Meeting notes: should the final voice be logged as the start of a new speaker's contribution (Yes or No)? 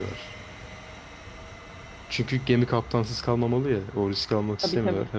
No